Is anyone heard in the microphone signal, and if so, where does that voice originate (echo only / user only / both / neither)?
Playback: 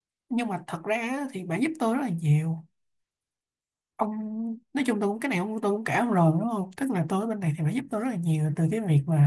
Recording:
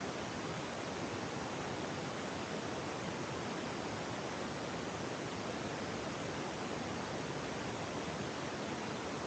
neither